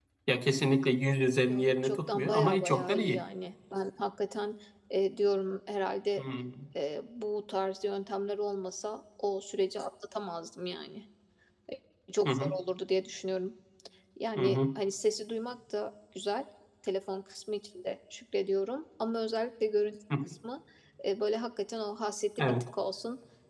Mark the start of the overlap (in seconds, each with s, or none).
1.5 s